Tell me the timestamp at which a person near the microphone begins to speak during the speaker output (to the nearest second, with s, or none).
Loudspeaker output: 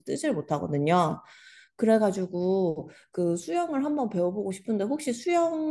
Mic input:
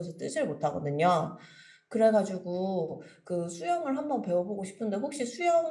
none